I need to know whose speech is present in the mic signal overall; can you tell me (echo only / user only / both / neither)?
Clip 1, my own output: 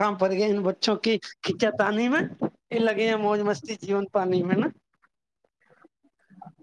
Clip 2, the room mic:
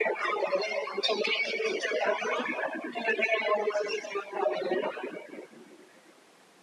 echo only